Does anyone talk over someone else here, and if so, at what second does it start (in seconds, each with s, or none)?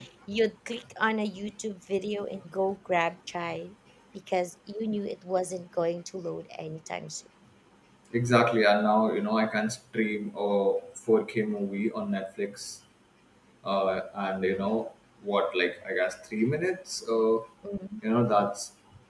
none